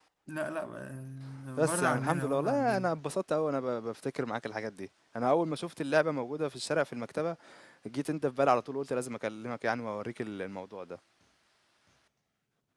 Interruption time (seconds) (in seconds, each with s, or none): 1.6 s